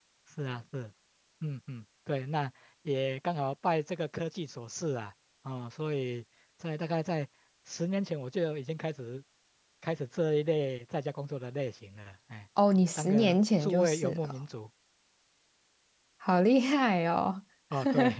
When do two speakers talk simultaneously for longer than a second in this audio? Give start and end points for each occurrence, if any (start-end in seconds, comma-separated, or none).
12.9-14.3